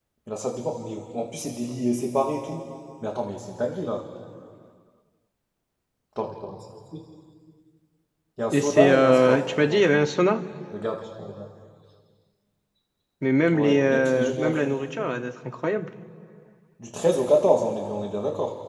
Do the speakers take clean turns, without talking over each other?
No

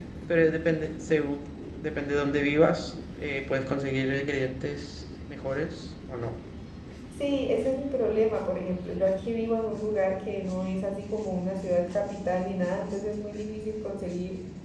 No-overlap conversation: Yes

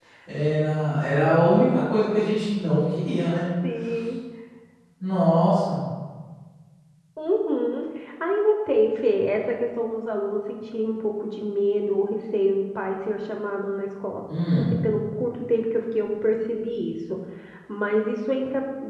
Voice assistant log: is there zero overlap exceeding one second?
Yes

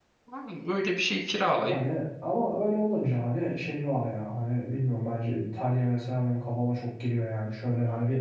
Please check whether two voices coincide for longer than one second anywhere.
No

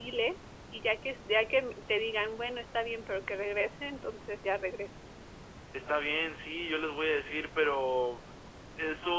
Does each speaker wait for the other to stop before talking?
Yes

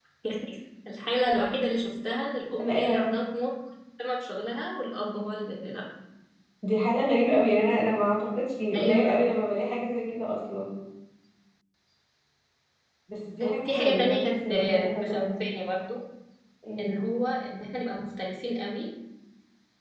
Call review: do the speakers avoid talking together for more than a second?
No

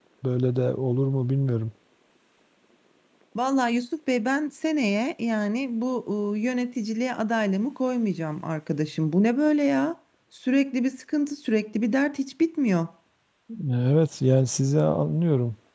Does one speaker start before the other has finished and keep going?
No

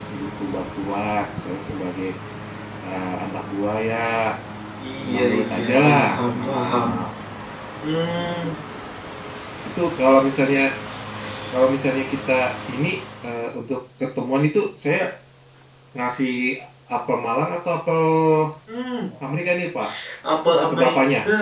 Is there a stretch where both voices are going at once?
Yes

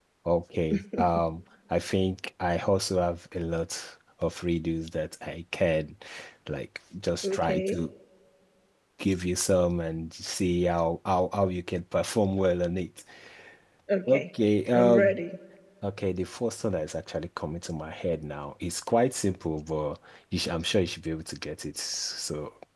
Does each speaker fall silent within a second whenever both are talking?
Yes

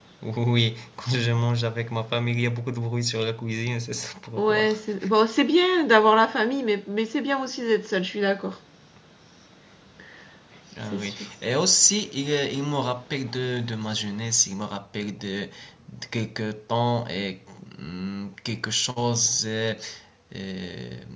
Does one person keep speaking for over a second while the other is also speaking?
No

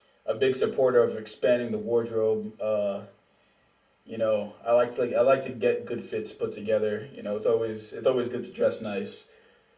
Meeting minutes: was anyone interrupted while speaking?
No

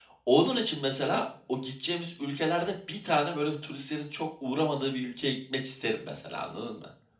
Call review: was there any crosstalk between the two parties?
No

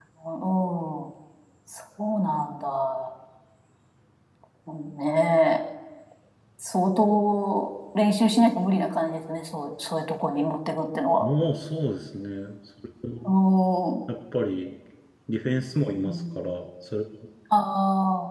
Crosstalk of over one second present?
No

